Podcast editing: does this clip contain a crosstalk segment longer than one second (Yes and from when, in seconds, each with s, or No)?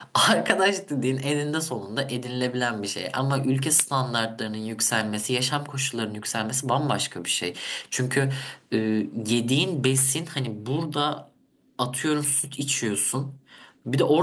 No